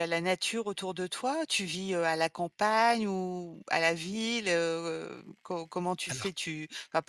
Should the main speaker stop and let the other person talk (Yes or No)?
No